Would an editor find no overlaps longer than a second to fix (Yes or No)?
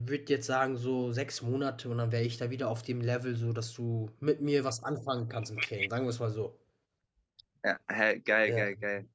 Yes